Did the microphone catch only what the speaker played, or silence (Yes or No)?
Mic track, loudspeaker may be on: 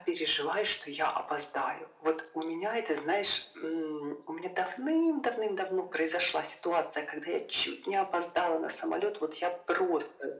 Yes